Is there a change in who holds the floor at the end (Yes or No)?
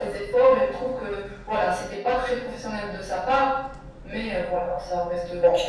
Yes